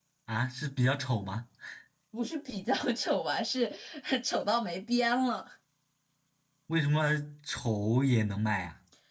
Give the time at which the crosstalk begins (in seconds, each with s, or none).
none